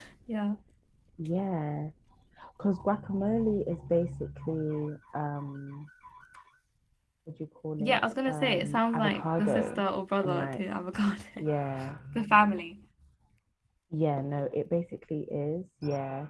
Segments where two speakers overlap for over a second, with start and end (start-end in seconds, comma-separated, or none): 7.8-9.8